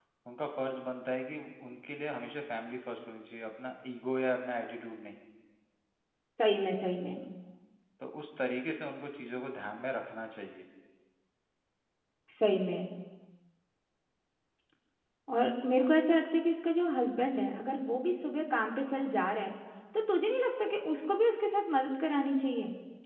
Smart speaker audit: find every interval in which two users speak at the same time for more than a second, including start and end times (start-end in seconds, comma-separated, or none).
none